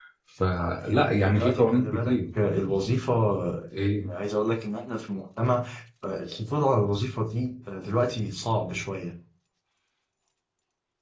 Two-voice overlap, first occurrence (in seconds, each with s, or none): 0.6 s